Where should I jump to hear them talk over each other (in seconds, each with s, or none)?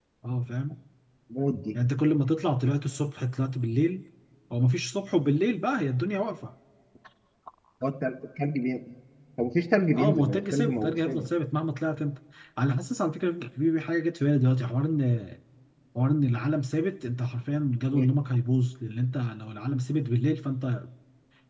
9.9 s